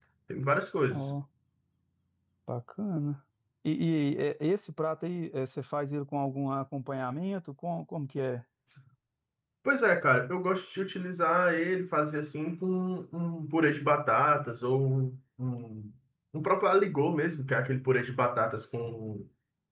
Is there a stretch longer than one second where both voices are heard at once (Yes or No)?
No